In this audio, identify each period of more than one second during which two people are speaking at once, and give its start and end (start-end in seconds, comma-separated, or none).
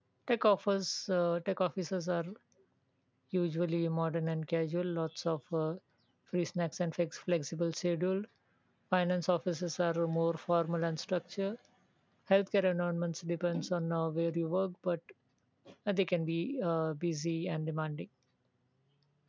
none